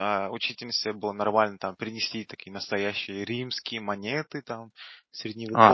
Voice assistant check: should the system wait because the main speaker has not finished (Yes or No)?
No